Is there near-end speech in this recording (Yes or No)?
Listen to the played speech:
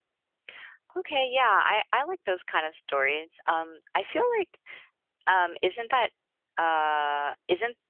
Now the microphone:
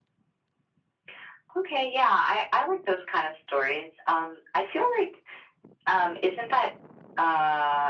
No